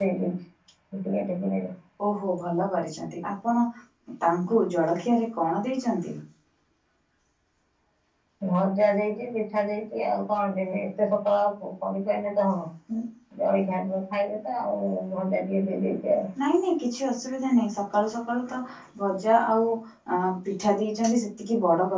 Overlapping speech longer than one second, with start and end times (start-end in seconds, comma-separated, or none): none